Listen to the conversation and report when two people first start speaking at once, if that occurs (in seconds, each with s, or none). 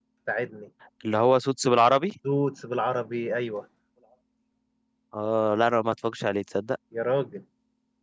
none